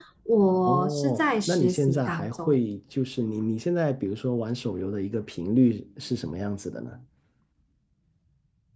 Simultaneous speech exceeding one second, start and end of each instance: 0.7-2.6

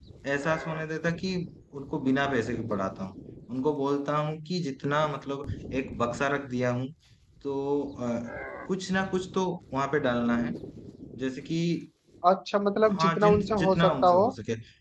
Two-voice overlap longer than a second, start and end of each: 12.9-14.2

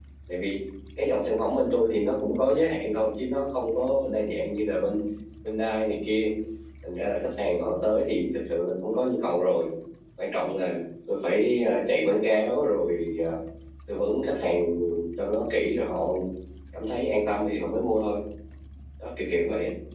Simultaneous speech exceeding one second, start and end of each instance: none

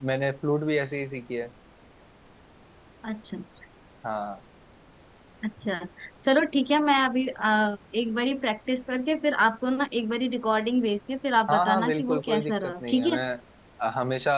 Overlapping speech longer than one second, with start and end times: 11.5-13.2

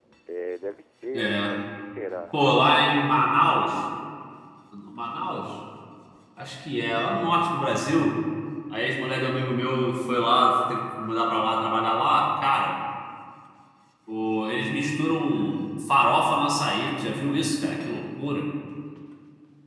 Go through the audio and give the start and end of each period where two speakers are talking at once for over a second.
none

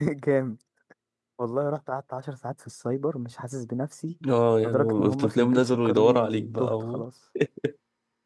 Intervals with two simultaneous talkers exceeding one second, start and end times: 4.7-6.7

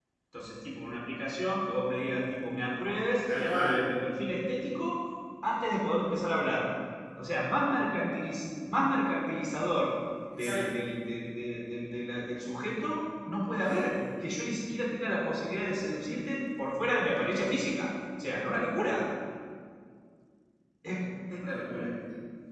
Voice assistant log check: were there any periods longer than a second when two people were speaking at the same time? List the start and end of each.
none

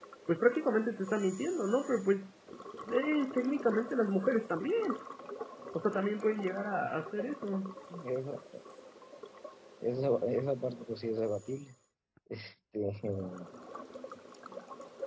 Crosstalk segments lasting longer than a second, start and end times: none

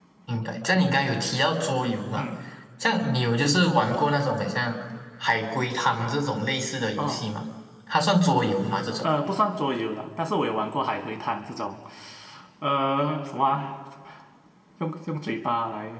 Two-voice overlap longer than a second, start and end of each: none

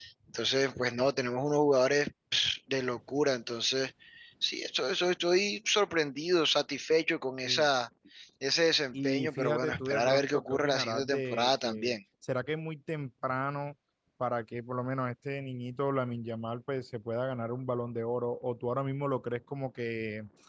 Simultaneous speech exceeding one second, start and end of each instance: 8.9-11.9

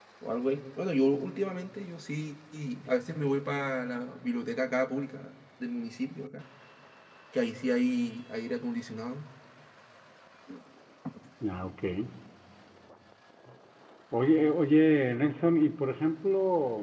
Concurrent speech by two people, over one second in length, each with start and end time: none

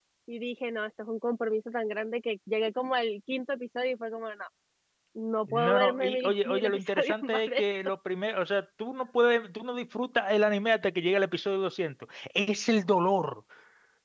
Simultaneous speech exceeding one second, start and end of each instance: 5.5-7.6

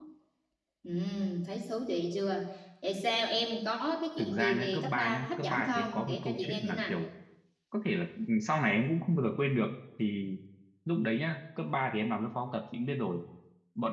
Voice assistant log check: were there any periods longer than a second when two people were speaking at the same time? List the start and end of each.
4.2-6.9

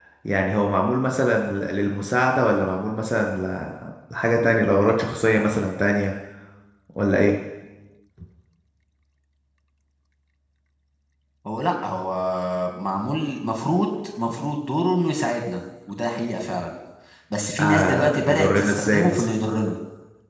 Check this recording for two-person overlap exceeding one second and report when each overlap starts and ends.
17.6-19.3

